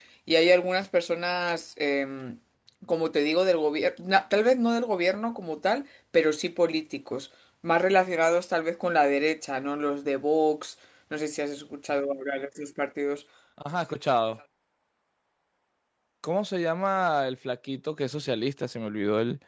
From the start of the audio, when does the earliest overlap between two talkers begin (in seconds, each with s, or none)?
none